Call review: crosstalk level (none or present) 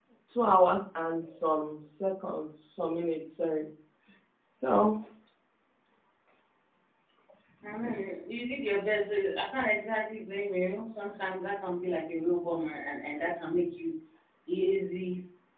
none